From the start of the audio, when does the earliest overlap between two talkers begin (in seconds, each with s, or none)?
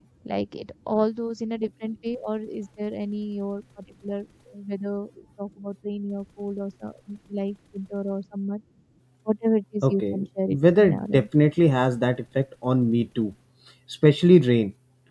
9.8 s